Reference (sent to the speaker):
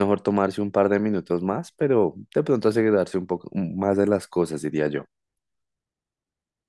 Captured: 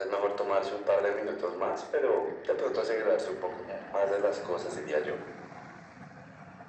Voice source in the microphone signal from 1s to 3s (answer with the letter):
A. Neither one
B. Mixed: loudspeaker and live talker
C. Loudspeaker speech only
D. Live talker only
C